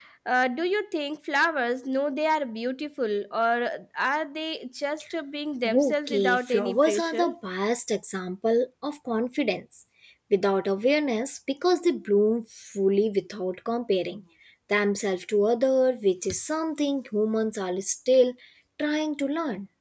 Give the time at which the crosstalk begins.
5.6 s

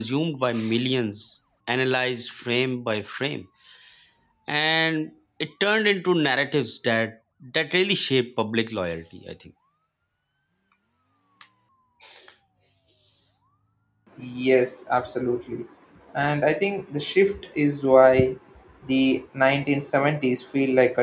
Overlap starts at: none

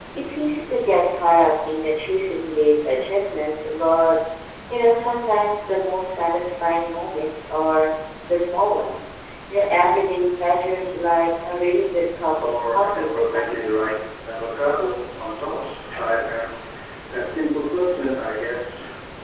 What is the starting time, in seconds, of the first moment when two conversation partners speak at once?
12.3 s

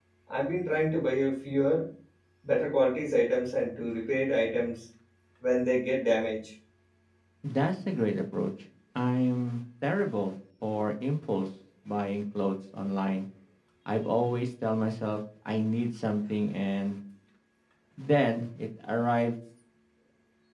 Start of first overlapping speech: none

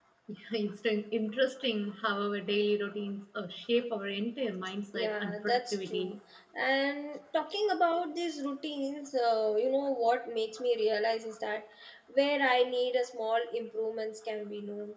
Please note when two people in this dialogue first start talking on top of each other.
4.9 s

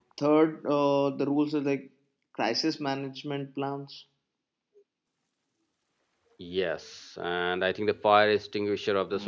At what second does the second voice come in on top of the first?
none

